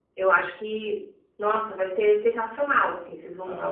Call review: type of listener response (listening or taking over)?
listening